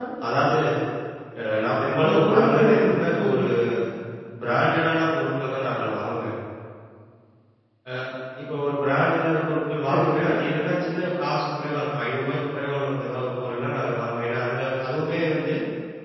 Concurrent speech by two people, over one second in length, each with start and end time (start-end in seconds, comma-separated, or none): 2.0-3.4